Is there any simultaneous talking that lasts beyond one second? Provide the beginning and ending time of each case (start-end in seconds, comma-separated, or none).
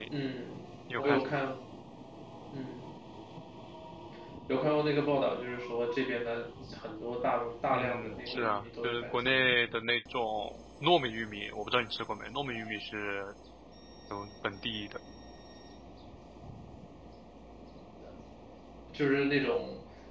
7.7-9.5